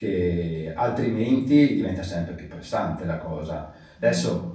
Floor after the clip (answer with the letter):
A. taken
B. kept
A